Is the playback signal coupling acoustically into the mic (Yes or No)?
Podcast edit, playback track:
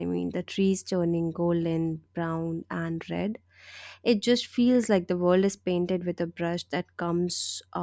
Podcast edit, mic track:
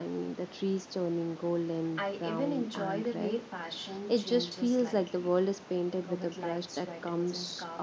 Yes